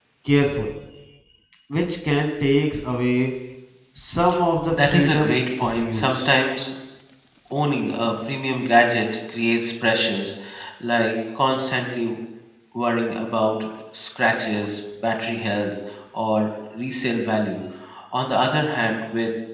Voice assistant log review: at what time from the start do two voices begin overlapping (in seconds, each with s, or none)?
4.6 s